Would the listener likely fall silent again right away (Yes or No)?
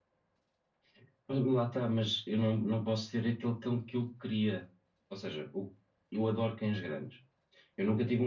Yes